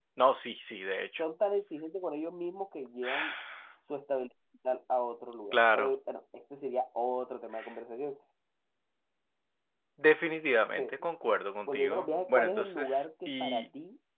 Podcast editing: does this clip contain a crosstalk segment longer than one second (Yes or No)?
Yes